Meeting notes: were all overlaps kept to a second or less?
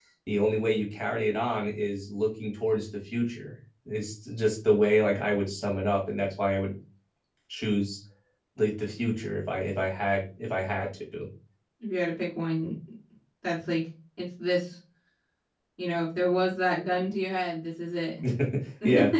Yes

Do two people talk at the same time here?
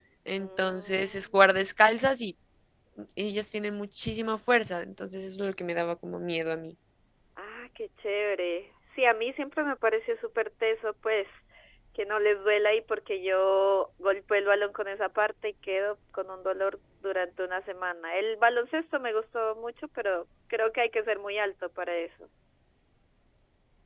Yes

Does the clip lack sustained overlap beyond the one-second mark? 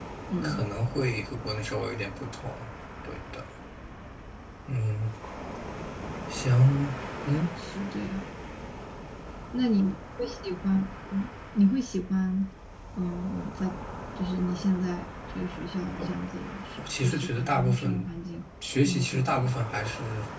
No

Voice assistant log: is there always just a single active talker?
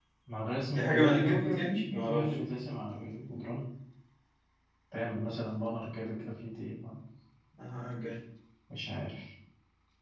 No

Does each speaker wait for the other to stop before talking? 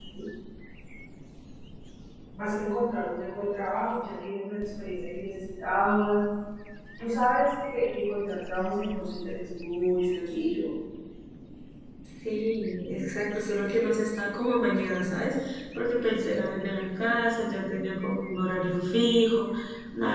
Yes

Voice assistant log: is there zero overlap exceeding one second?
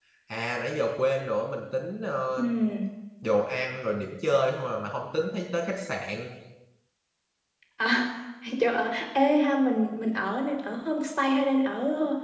Yes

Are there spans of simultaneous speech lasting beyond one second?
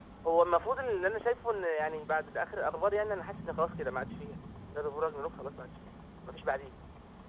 No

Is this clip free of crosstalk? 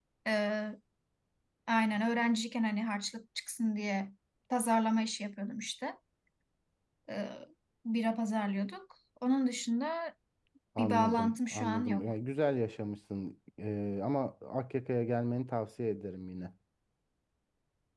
No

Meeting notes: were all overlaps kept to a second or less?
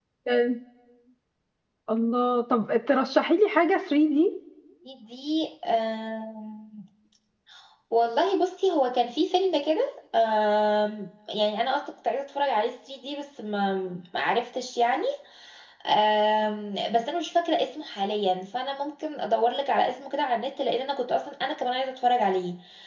Yes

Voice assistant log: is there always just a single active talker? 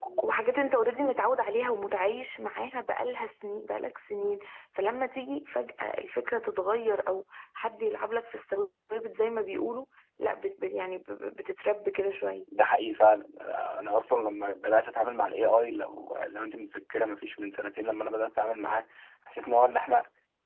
Yes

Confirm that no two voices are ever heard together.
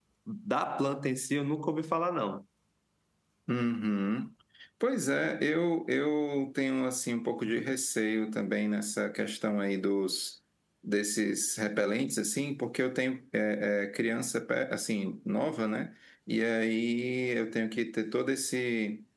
Yes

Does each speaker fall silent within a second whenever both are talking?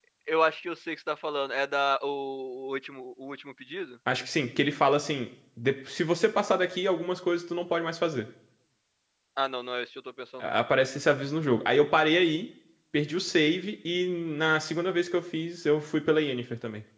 Yes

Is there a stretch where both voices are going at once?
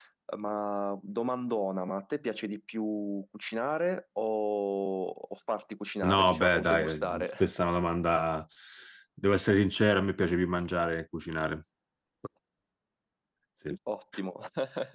Yes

